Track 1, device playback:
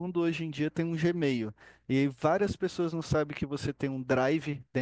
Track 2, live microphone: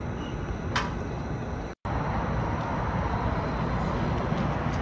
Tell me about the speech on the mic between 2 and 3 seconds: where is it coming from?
neither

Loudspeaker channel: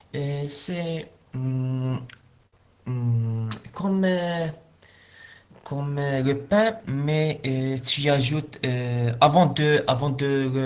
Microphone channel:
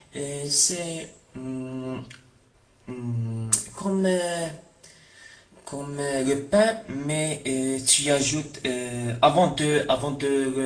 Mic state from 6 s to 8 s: echo only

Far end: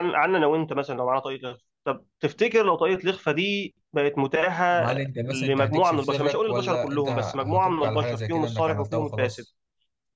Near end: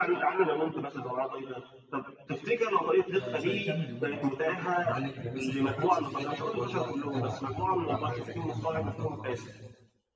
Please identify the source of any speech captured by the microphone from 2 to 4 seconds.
both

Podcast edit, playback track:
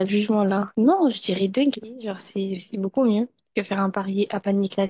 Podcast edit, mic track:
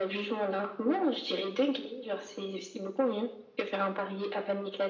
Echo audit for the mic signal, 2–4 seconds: echo only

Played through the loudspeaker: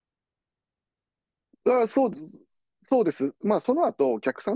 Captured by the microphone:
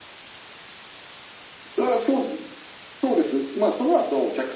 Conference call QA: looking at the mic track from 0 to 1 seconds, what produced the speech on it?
neither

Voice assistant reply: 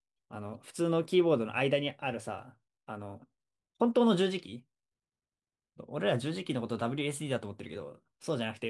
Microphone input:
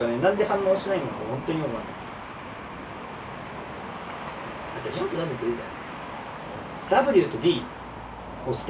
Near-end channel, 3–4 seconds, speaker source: neither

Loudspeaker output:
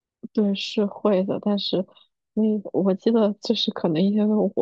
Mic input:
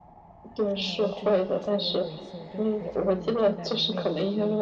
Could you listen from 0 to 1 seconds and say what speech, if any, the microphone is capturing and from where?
both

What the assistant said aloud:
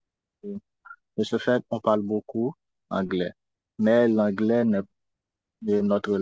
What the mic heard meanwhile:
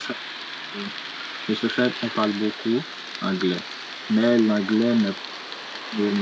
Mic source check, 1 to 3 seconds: echo only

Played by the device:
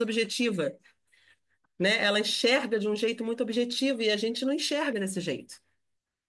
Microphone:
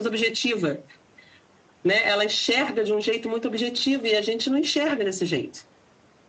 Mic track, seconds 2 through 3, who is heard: echo only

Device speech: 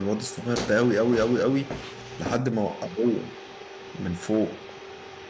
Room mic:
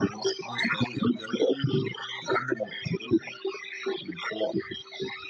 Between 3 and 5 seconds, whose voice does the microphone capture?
echo only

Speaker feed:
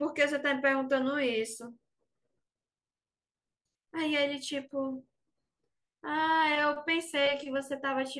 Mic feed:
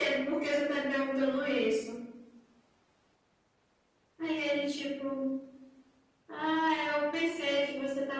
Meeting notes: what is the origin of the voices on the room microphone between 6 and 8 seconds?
echo only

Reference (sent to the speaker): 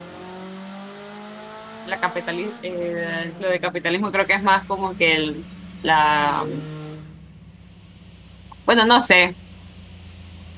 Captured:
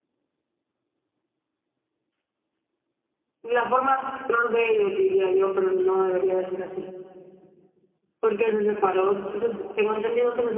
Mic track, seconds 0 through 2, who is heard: neither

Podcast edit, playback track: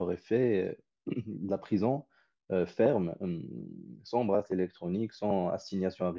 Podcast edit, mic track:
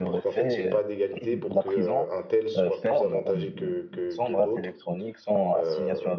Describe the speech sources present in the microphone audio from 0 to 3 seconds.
both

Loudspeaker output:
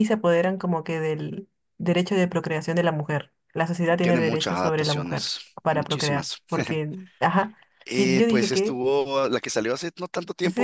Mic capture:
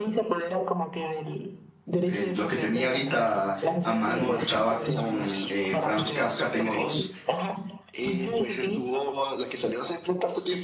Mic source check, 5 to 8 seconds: both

